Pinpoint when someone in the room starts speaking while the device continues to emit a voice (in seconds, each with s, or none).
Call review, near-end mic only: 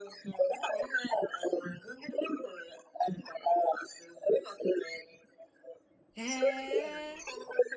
6.1 s